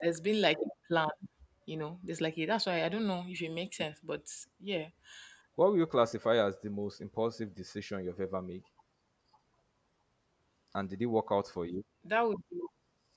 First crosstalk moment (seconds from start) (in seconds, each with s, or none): none